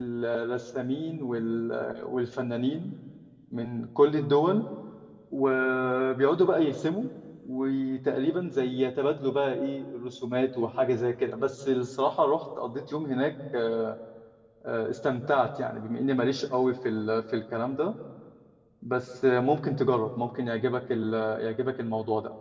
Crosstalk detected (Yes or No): No